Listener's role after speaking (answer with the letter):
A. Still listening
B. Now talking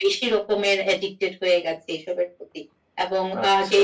A